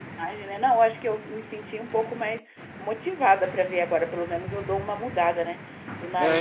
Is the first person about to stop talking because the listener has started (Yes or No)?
Yes